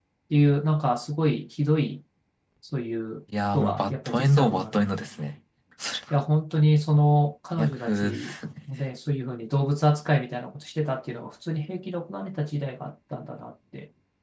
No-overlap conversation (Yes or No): No